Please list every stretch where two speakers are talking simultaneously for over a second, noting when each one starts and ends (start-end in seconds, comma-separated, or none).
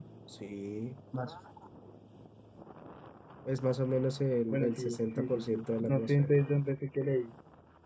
4.5-6.3